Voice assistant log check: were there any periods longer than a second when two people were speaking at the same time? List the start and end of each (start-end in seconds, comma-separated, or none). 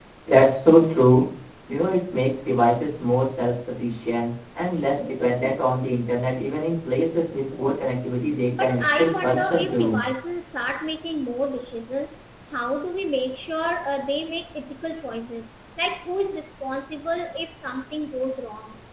8.5-10.0